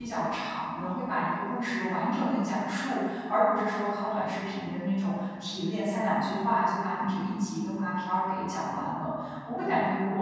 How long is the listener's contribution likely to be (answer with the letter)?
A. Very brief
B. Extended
A